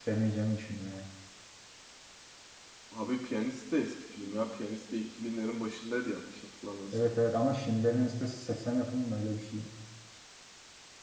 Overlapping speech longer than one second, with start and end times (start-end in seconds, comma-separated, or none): none